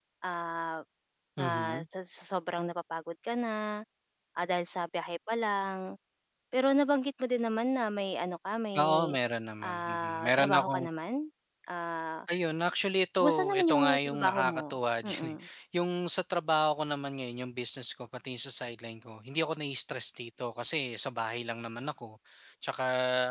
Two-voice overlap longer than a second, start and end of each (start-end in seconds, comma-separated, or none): 9.6-10.8, 13.2-14.6